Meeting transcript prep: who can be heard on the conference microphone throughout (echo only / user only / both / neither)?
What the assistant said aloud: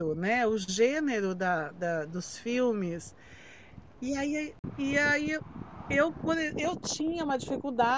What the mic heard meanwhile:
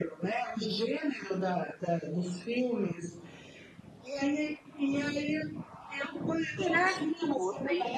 both